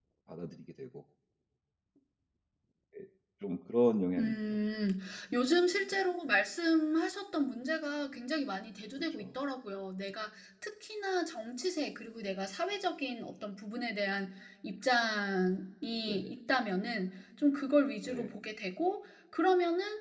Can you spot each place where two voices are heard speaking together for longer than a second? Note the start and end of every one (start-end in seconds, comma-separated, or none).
none